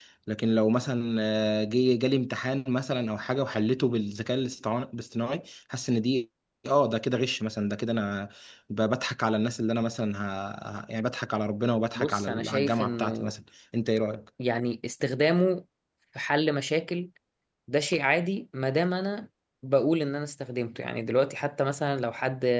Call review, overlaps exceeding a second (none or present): present